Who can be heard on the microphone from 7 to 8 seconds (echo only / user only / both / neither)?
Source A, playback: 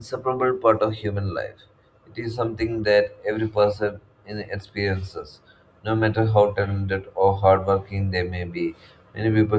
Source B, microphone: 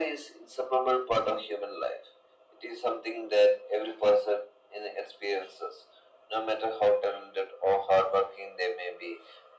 echo only